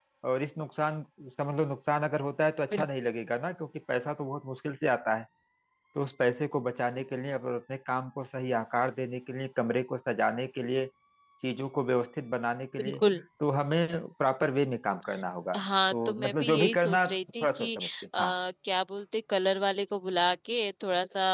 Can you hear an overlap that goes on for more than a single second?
Yes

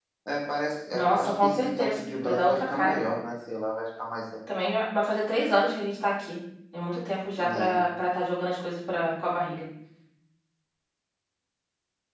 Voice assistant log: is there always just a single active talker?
No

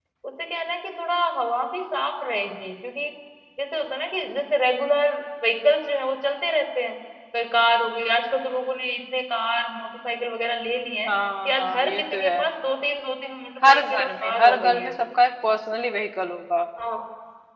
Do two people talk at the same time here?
Yes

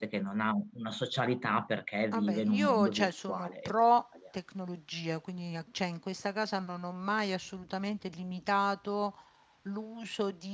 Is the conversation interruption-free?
No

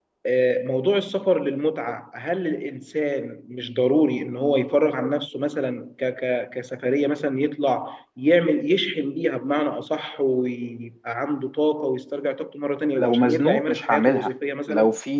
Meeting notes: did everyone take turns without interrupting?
No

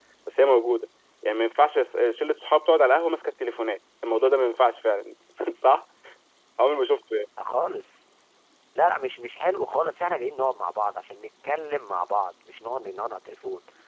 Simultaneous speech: No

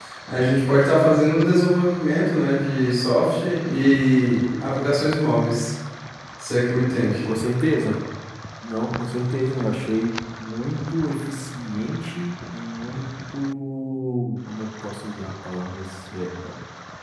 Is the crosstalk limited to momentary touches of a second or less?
Yes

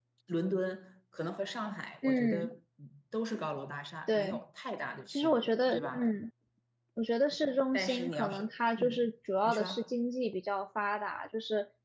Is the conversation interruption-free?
No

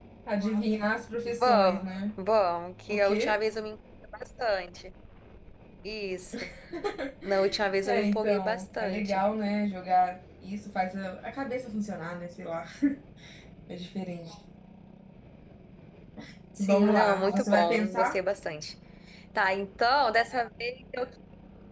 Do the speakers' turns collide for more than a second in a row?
Yes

